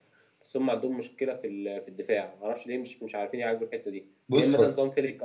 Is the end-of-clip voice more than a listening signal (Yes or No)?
No